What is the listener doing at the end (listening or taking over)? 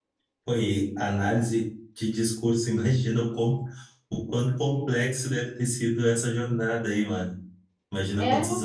listening